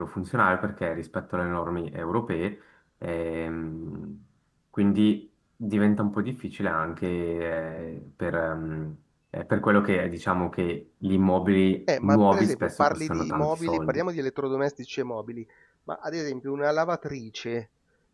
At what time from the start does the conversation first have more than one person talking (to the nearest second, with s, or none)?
12 s